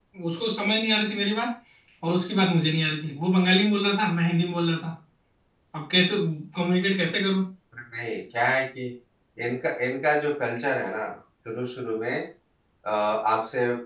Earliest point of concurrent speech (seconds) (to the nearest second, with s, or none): none